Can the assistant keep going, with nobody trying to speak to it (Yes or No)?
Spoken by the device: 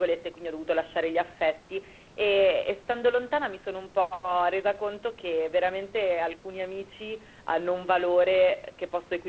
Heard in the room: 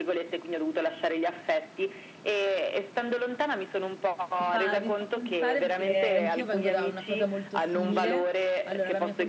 No